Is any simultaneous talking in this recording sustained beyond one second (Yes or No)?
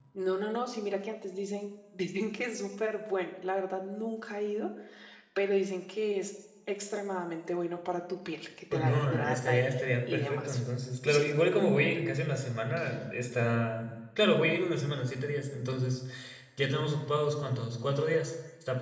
Yes